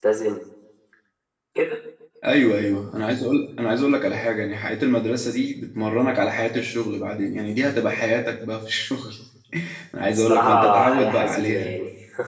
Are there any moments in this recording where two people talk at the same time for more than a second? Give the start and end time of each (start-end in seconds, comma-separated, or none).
10.1-11.8